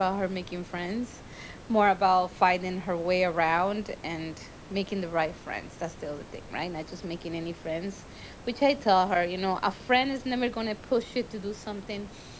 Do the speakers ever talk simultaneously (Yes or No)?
No